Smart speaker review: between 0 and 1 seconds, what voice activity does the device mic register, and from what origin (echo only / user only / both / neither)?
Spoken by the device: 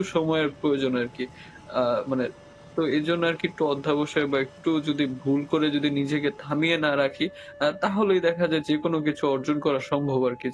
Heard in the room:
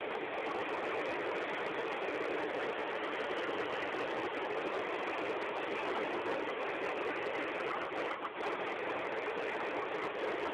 neither